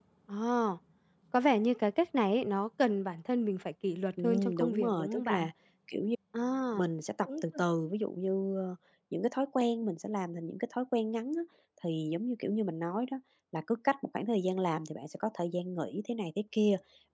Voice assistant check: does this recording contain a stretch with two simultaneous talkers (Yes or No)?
Yes